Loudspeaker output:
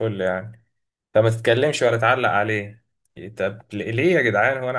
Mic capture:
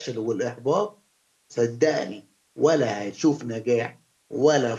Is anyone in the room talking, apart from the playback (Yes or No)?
Yes